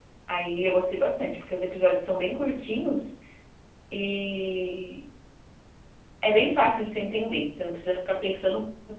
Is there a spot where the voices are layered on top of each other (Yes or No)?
No